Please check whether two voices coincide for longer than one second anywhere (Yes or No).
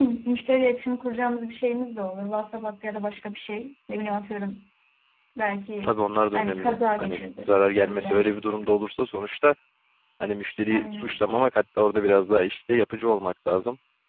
Yes